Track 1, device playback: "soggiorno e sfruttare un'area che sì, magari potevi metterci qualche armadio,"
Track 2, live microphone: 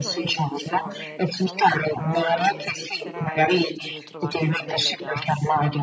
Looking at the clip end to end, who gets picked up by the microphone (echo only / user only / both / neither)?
both